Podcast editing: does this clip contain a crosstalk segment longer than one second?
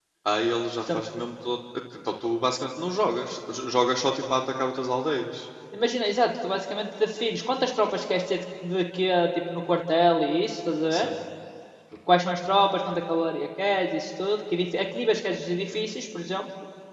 No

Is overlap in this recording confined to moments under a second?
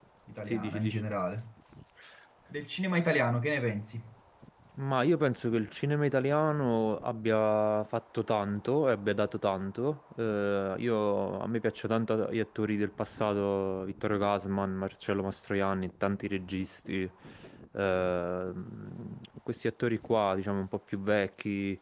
Yes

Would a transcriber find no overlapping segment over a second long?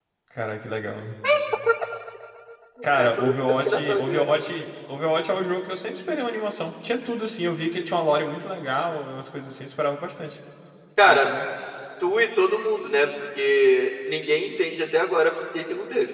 No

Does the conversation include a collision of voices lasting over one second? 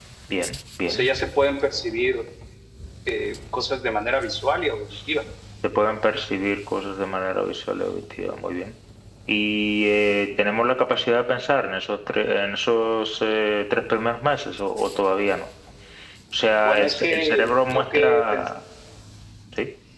Yes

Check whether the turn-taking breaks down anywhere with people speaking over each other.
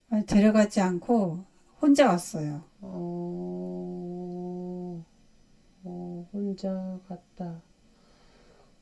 No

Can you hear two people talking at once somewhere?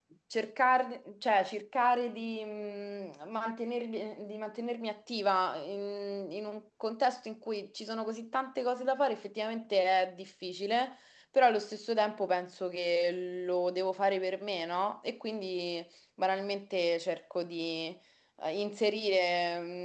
No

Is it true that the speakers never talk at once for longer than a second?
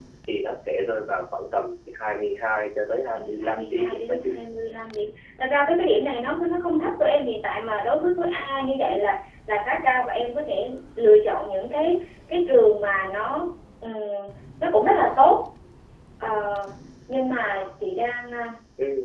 No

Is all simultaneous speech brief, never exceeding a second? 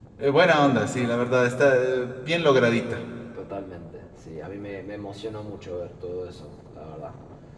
Yes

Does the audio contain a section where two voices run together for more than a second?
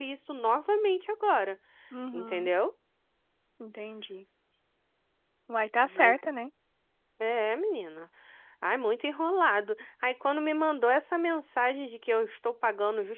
No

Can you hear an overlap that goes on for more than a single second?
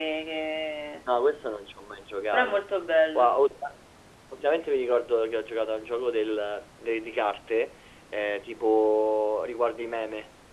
No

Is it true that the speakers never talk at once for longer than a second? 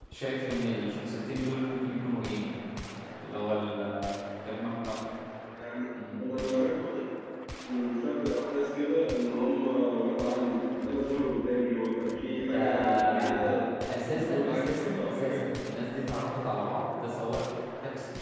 No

